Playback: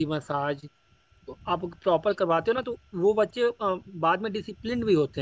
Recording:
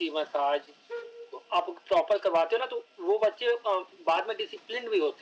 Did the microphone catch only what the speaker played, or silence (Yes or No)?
Yes